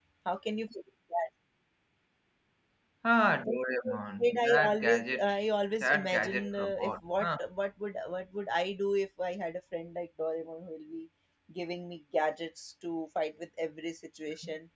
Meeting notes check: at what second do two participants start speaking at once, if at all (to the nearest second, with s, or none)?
3 s